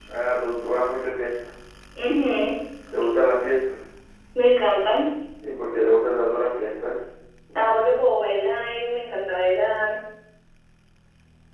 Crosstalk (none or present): none